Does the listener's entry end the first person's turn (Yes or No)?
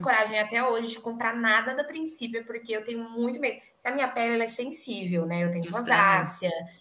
No